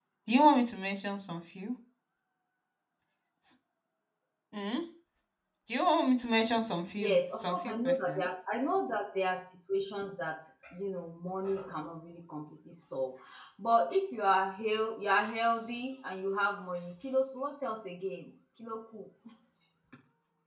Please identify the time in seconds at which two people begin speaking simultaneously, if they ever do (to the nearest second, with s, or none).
7 s